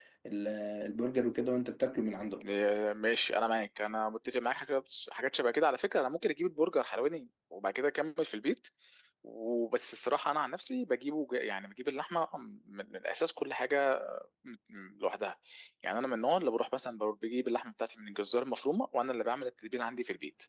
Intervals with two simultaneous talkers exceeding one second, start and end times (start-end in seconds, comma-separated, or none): none